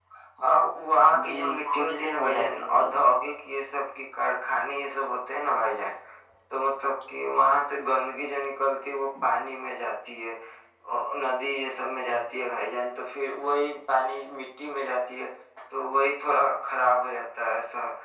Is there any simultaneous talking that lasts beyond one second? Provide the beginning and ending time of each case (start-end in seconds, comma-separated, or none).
1.2-3.0